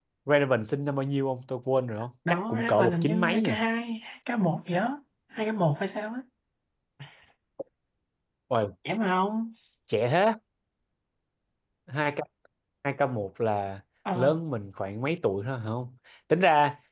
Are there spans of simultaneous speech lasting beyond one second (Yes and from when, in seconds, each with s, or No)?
Yes, from 2.3 s